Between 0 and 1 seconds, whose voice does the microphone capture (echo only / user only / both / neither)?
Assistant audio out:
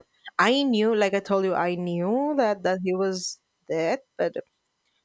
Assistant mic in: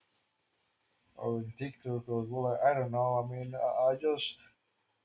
neither